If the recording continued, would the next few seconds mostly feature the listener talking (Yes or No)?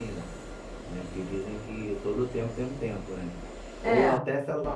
No